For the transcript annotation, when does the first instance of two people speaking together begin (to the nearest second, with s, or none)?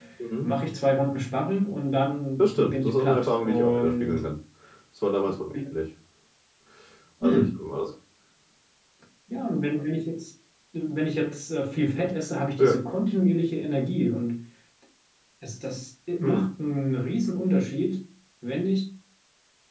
2 s